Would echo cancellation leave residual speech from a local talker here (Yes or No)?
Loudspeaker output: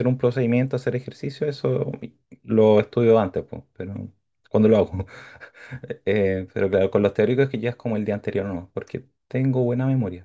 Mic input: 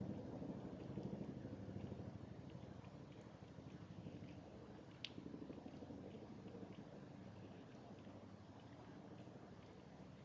No